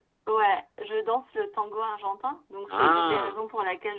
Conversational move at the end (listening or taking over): listening